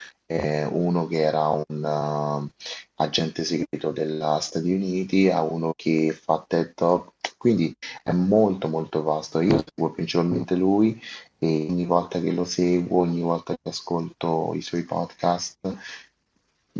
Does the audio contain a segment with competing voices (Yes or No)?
No